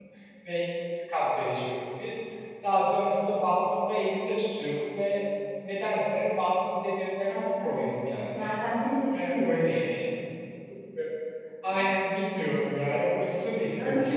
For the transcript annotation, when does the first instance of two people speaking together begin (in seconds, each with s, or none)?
7.3 s